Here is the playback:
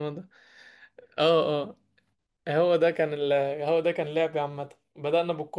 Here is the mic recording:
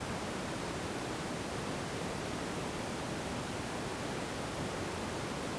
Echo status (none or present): none